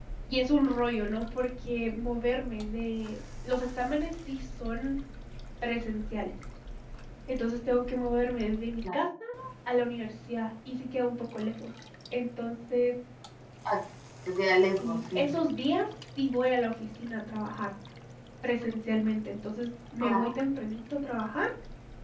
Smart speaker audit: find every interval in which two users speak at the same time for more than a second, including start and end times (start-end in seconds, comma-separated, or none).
none